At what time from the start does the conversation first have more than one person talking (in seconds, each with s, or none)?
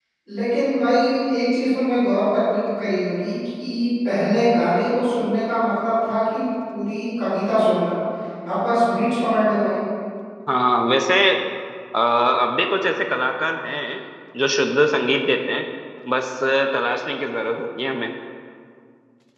none